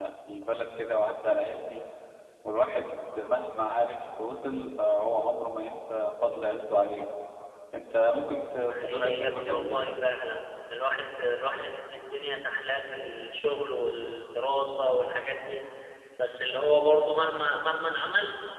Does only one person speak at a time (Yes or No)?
No